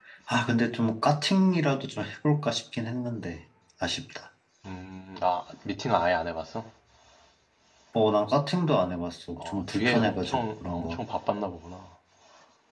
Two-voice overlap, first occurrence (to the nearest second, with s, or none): 9 s